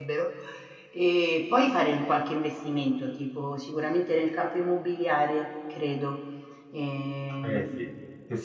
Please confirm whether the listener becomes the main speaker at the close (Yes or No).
Yes